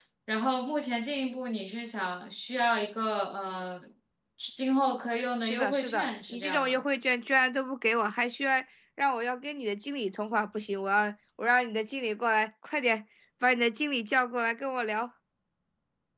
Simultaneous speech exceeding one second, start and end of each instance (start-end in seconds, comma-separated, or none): 5.4-6.8